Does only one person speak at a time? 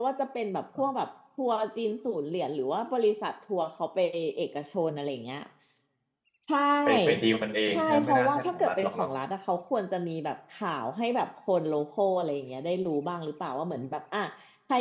No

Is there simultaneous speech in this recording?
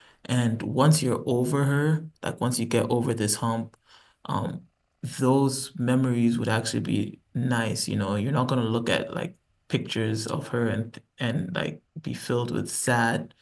No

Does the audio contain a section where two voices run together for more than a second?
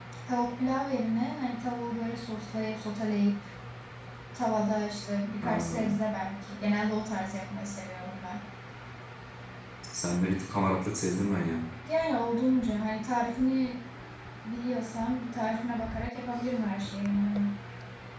No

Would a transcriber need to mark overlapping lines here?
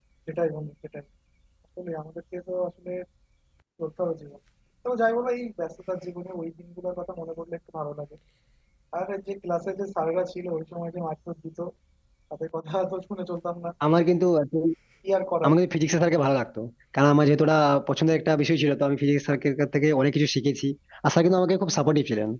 No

